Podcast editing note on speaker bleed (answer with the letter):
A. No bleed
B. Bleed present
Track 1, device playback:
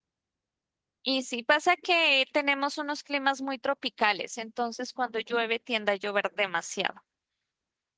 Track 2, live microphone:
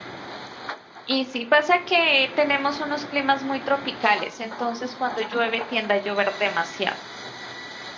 B